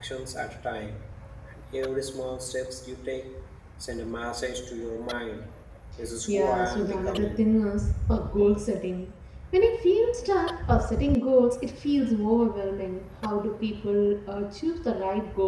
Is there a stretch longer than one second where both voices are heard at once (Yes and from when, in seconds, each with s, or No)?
Yes, from 6.3 s